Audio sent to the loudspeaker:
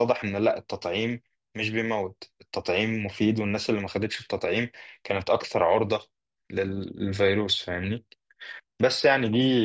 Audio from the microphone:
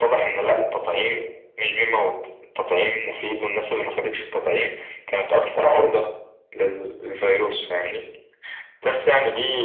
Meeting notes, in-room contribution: none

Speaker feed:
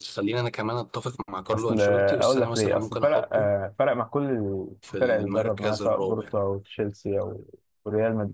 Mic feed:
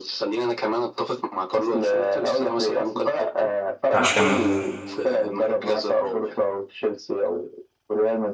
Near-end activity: present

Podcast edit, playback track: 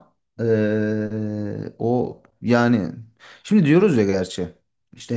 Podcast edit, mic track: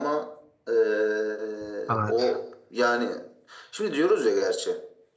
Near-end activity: present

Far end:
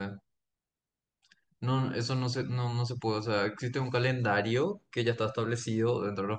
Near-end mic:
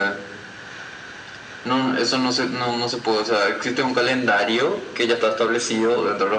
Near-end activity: none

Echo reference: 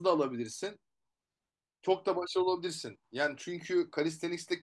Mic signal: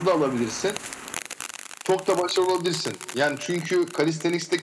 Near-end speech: none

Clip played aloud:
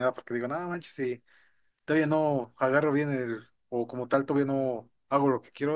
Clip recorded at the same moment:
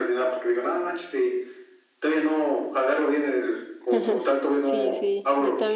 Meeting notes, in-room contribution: present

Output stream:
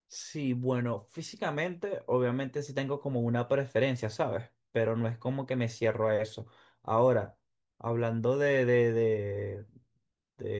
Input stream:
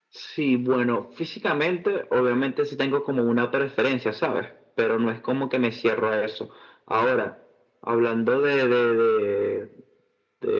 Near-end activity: none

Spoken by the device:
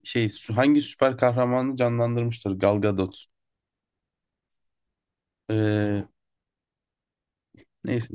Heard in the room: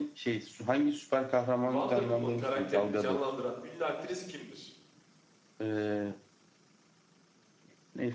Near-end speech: present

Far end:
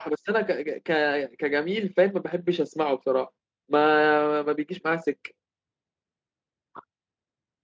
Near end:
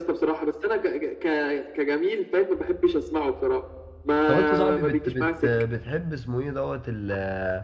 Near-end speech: present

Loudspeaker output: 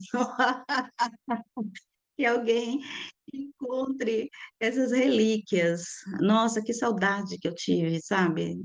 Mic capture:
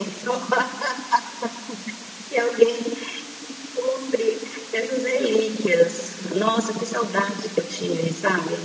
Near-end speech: none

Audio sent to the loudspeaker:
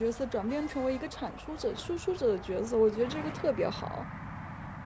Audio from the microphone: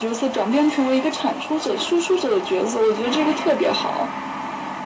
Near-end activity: none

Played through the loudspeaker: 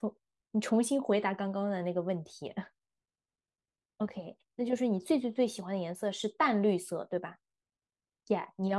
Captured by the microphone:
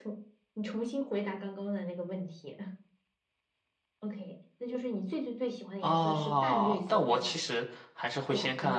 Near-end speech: present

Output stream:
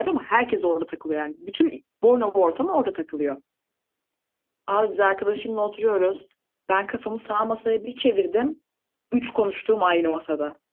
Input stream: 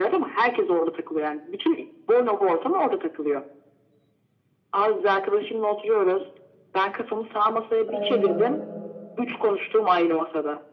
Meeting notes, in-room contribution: present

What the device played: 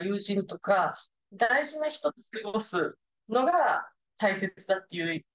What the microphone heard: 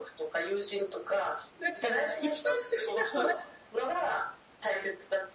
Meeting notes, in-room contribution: present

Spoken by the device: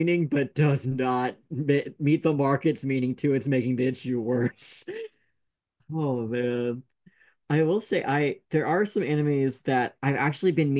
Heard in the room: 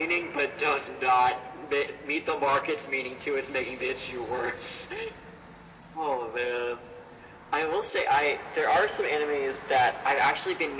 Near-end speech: none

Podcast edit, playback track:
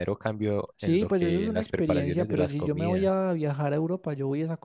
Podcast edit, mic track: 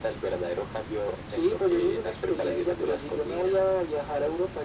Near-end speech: none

